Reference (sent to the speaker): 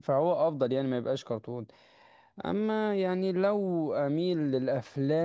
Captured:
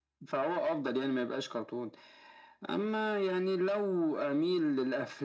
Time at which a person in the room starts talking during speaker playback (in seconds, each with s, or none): none